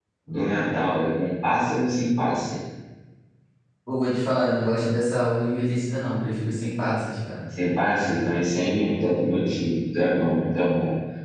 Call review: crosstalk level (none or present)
none